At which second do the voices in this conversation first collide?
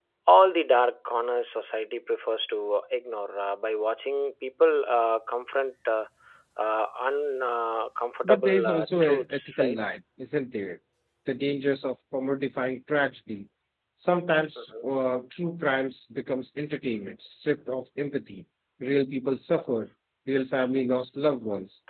8.2 s

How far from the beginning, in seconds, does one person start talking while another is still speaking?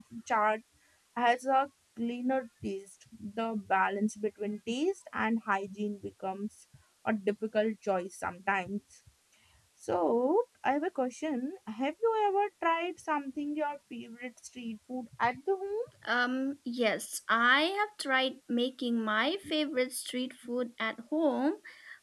none

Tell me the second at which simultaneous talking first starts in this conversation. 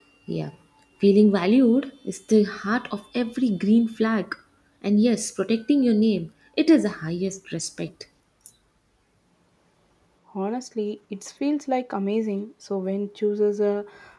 none

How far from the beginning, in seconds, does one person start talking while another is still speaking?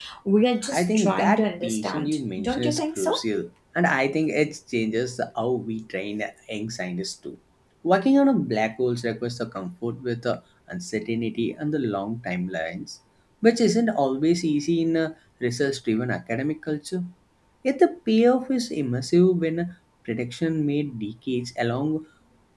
0.7 s

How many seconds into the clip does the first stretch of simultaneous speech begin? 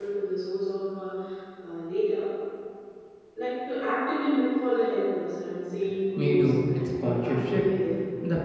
6.2 s

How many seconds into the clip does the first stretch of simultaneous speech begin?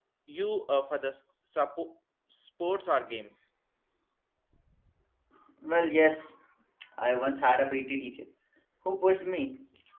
none

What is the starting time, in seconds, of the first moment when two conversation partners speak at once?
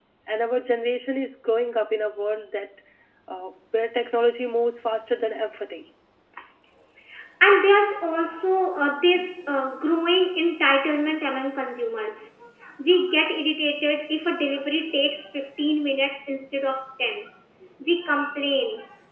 none

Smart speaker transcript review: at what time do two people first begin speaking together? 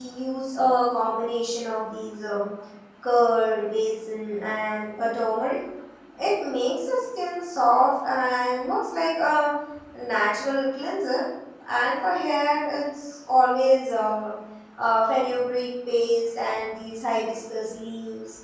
none

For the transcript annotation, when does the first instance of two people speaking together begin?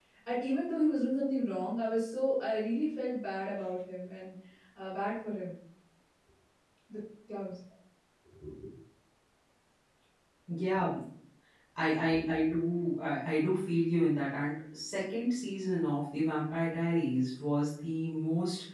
none

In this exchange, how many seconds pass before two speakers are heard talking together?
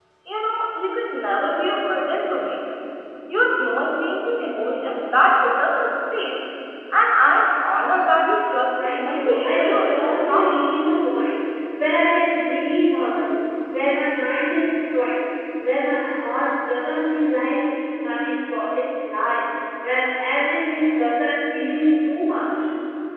8.8 s

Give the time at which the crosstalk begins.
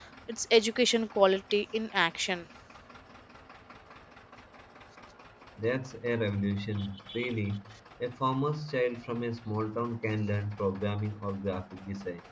none

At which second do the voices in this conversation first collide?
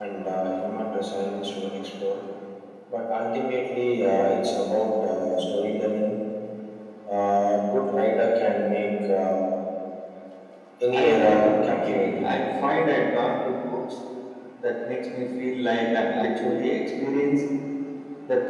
10.9 s

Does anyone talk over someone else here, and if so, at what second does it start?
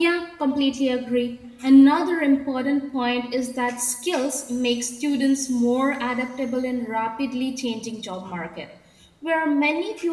none

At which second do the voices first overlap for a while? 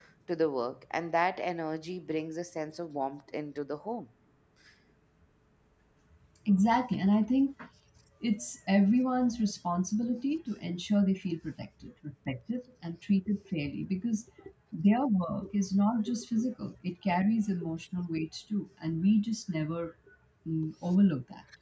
none

